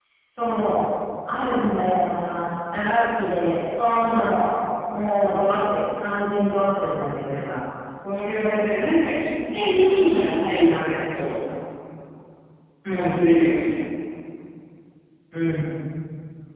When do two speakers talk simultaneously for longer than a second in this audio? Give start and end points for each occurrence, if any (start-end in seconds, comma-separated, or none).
9.6-11.0